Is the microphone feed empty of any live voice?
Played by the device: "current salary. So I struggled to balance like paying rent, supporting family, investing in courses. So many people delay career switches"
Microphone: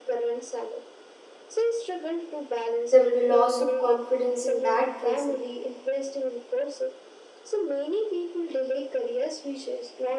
No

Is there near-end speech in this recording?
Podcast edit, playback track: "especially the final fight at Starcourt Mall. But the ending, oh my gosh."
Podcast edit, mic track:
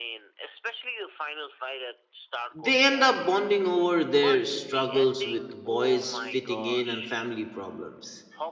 Yes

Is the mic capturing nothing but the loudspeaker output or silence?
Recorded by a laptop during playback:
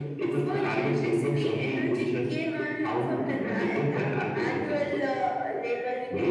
Yes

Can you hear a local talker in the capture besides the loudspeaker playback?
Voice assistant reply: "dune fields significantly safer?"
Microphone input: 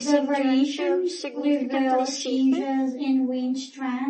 Yes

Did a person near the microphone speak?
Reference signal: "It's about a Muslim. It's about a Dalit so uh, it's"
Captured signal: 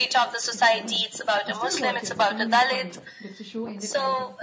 Yes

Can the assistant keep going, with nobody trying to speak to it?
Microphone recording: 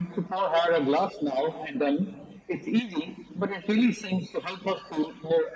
Yes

